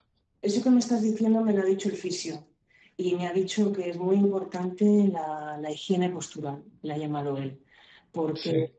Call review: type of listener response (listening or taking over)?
listening